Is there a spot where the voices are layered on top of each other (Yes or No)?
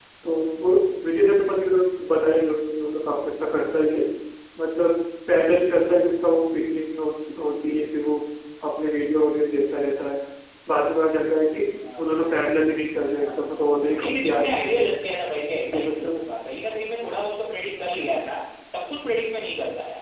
Yes